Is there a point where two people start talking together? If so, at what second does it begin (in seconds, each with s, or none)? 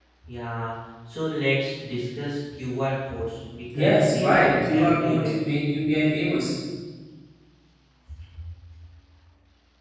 3.7 s